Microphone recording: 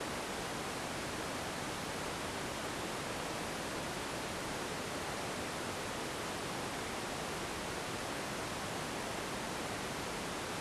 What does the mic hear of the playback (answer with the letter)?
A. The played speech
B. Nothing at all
B